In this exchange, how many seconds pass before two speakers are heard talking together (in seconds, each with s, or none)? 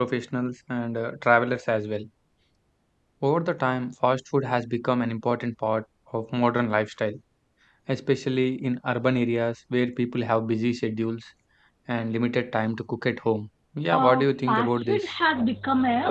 13.9 s